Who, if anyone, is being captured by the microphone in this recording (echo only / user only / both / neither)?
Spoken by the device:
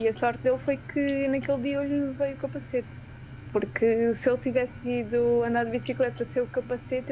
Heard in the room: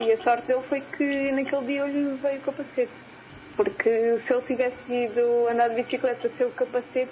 echo only